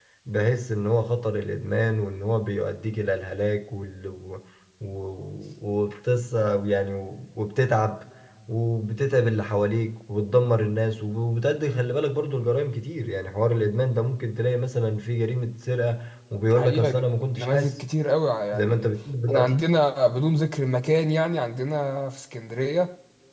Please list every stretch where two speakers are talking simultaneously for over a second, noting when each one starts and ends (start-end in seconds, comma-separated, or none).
16.4-17.8